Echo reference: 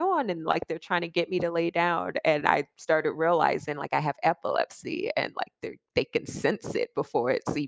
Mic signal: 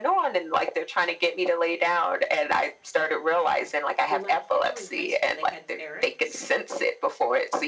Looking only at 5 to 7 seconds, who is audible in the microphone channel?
both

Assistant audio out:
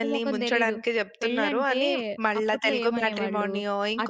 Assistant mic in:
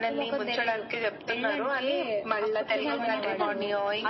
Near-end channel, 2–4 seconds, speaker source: both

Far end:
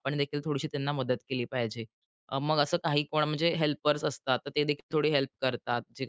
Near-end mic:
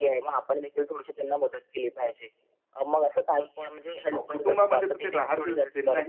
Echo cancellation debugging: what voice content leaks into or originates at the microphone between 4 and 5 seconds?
both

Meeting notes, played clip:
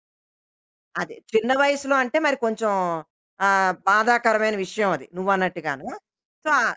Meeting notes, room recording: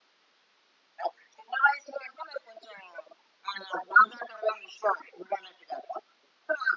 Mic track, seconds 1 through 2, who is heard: echo only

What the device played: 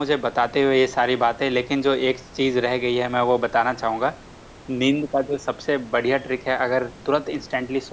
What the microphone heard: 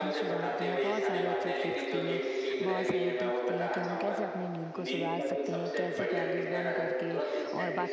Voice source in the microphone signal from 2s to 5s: both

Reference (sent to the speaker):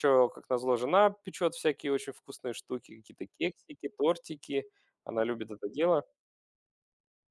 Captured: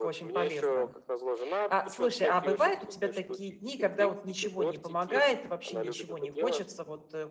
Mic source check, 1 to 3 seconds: both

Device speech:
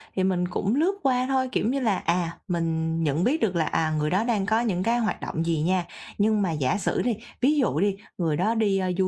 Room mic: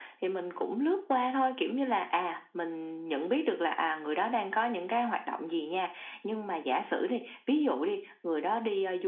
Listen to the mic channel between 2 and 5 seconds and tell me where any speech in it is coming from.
echo only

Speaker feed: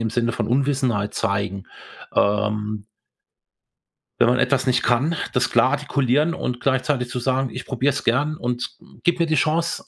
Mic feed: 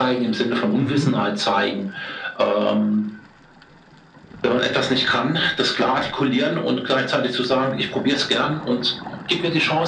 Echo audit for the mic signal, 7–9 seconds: echo only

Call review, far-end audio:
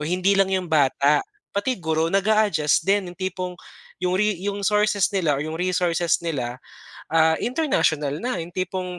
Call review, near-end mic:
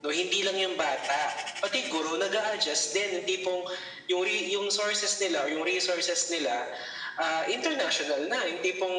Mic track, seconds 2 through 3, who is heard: echo only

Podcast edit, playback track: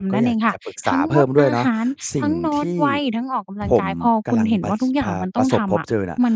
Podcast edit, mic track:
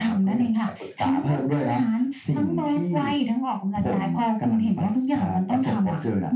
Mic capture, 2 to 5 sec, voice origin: echo only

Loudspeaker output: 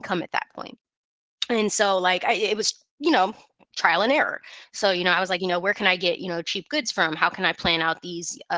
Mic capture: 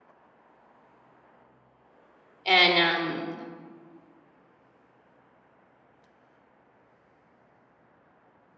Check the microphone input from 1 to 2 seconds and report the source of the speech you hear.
neither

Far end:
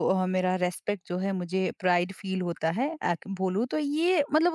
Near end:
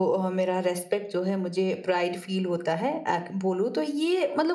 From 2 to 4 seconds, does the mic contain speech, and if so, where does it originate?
echo only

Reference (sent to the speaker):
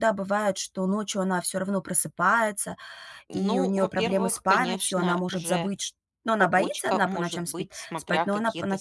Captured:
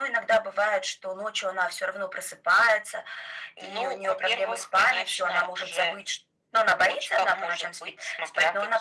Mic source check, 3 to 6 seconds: echo only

